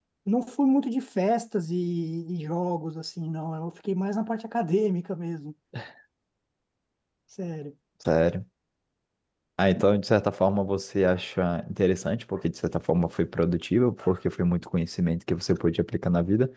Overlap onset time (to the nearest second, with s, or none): none